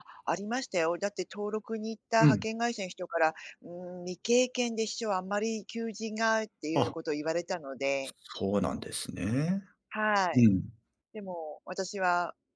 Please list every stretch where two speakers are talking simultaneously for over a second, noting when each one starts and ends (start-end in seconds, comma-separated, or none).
none